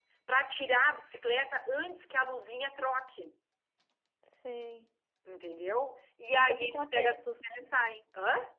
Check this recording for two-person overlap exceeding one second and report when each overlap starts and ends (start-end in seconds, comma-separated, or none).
6.4-7.7